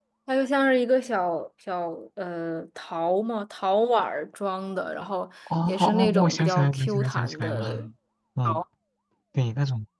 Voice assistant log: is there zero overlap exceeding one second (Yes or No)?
No